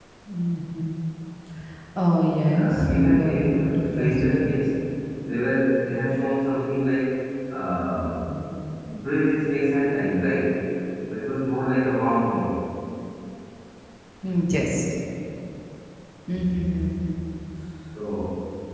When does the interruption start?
2.5 s

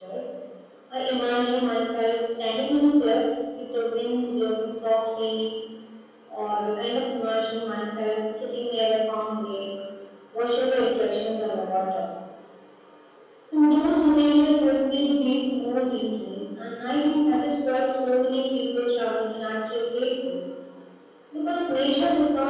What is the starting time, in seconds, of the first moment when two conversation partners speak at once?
none

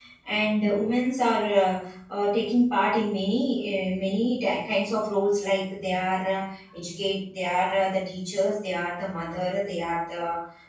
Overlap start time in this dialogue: none

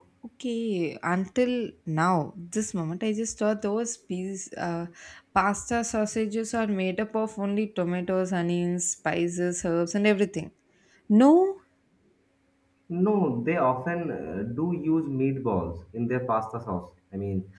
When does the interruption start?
none

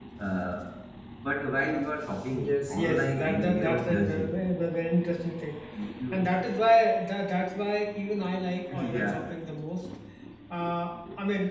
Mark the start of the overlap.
2.3 s

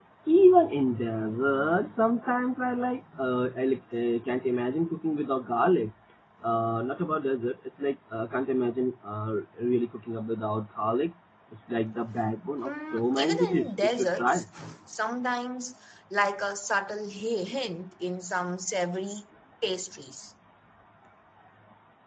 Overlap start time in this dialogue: 12.6 s

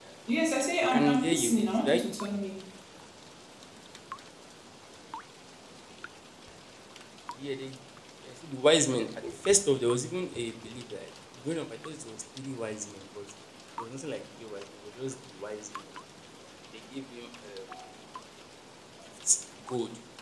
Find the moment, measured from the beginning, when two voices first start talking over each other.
0.8 s

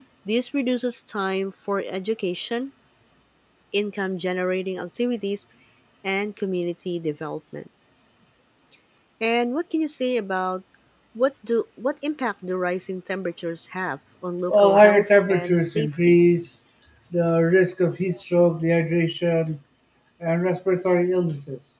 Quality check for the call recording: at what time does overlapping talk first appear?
14.5 s

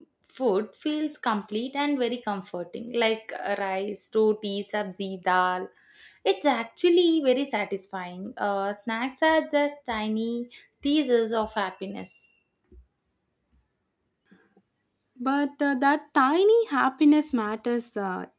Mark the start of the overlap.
none

